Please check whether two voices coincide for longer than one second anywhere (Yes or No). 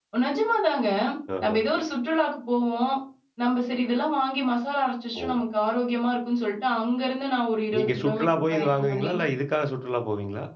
Yes